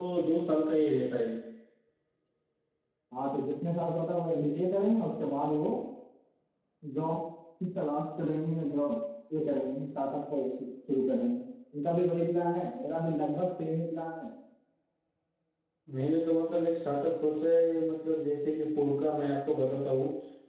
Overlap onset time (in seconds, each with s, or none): none